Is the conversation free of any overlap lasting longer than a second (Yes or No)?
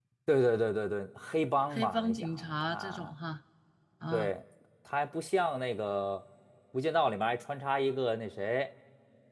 No